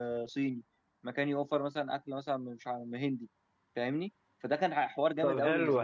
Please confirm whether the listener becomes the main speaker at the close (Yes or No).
Yes